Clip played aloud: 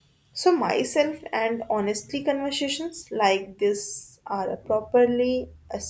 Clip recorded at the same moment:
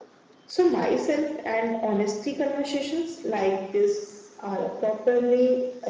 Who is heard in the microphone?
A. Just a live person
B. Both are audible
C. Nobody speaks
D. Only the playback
D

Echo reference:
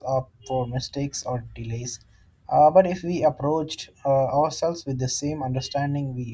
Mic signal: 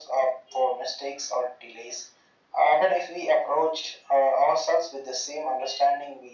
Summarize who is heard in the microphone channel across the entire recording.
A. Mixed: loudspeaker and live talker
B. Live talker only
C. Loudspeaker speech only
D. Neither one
C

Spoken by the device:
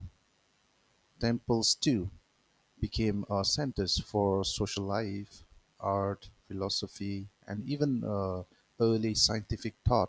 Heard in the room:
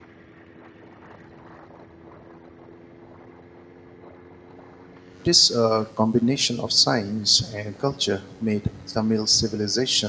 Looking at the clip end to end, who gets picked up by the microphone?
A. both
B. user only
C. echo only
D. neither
B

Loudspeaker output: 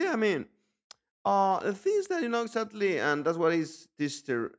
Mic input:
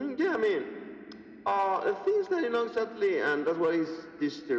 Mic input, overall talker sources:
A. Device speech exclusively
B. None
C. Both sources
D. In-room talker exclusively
A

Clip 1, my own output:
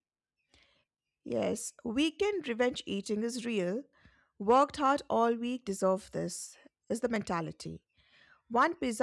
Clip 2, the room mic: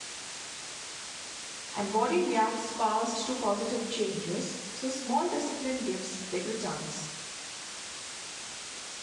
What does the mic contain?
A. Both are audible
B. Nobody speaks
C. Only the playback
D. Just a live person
D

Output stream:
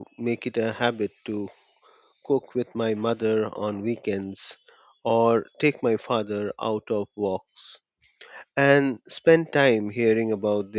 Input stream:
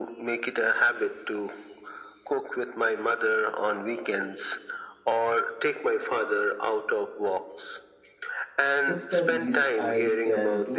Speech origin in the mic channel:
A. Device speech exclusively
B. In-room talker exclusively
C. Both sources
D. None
C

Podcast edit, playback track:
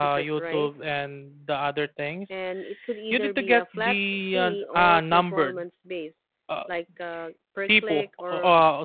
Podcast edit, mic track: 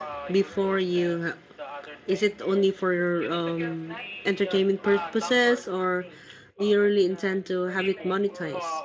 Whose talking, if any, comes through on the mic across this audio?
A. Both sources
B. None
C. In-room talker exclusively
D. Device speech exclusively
A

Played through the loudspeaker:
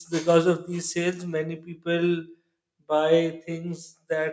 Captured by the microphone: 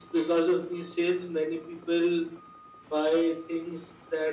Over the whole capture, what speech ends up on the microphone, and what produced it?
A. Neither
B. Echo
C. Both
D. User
B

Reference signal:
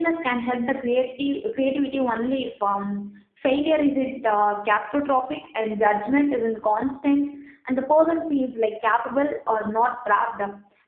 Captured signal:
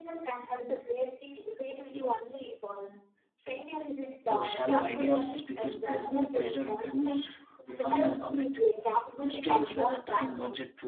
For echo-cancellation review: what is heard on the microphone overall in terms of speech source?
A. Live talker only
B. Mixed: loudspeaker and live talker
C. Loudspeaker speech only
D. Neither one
B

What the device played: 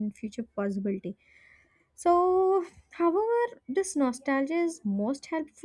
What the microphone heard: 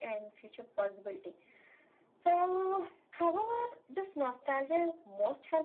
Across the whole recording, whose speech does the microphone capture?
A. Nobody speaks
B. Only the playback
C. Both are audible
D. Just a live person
B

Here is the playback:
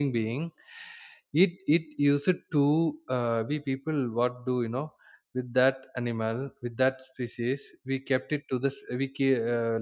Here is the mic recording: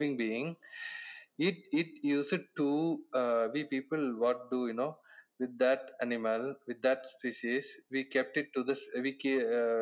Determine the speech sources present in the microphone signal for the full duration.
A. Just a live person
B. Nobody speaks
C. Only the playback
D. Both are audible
C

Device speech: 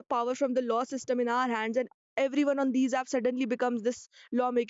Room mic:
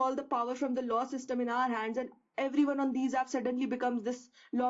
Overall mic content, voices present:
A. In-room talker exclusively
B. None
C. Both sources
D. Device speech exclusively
D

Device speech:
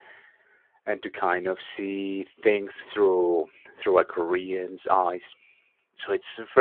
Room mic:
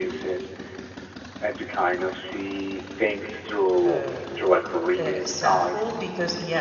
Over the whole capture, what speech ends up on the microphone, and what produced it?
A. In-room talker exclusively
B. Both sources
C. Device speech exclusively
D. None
B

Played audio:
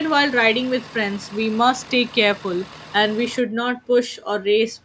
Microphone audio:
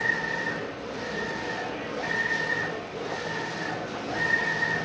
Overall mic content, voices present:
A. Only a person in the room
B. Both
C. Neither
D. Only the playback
C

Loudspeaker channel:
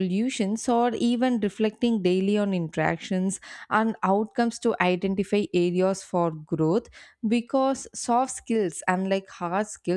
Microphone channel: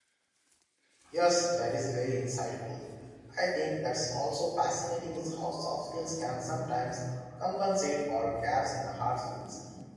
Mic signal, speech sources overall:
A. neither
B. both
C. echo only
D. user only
D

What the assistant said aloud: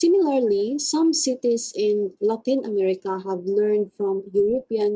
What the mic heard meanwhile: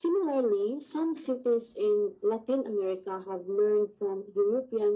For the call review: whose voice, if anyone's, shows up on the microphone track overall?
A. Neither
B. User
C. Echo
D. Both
C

